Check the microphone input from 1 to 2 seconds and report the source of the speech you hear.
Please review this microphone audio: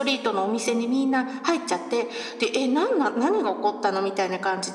echo only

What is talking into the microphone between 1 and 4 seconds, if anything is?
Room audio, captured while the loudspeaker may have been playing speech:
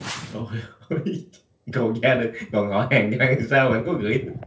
user only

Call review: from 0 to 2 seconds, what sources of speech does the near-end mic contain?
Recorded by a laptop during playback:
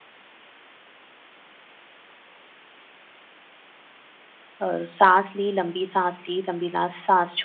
neither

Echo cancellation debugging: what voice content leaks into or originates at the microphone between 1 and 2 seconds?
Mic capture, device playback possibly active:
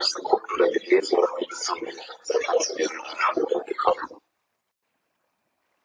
echo only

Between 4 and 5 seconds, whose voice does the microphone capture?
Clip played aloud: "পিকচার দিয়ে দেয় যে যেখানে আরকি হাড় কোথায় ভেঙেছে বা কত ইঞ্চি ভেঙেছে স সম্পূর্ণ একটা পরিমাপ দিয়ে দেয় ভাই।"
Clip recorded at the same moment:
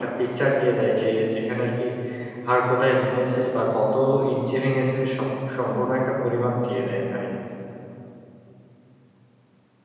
echo only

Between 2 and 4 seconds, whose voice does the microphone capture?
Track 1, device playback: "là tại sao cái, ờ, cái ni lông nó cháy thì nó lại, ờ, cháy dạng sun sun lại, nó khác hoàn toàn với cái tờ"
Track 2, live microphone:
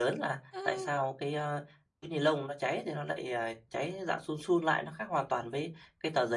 echo only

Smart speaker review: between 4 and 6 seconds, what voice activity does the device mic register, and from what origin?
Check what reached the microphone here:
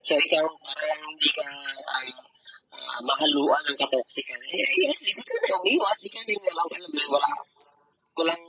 echo only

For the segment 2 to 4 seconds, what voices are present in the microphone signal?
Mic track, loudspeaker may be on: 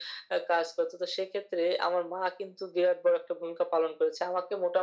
echo only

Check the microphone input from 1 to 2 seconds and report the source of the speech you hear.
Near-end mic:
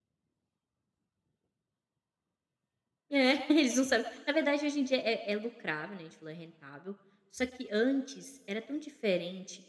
neither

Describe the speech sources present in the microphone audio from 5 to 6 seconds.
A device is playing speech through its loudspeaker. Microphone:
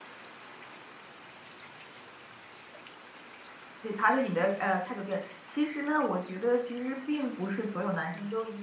user only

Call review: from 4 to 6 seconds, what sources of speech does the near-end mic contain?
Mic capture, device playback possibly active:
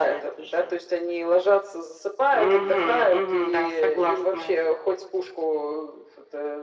echo only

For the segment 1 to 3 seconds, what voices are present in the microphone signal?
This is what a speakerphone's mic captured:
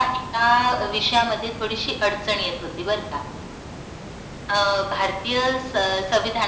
echo only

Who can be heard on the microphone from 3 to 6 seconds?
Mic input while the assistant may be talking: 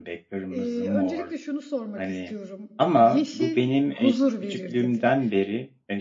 both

